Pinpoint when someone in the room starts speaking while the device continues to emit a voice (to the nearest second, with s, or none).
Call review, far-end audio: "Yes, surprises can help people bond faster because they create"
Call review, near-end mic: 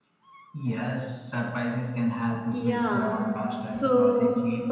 3 s